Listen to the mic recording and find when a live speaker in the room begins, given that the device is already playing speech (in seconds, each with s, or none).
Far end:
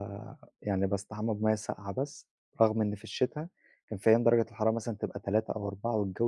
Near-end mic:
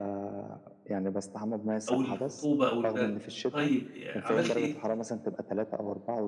1.9 s